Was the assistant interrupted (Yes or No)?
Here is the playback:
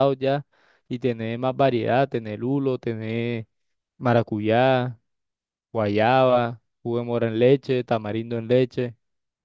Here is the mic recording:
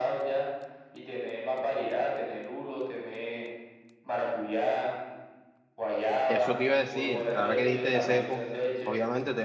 Yes